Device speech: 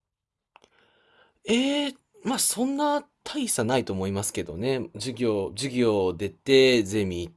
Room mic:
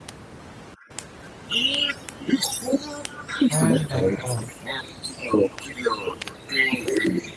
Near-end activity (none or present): present